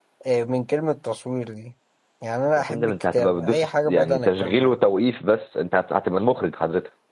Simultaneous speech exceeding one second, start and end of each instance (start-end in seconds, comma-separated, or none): 2.7-4.8